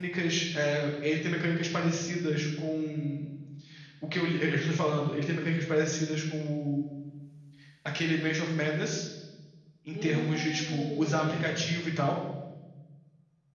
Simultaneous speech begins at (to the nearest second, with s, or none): 10 s